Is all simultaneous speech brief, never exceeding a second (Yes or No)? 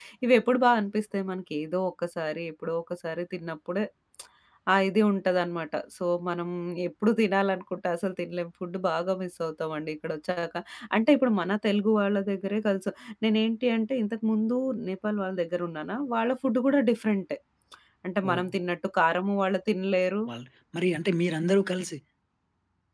Yes